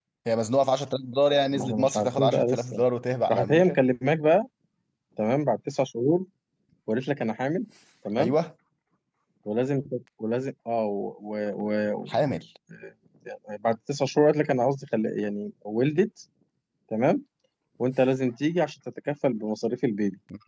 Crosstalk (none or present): present